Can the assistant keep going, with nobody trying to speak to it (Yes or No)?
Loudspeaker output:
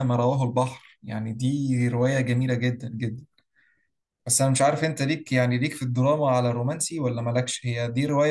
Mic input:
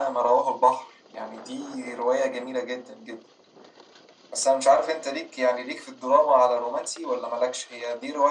Yes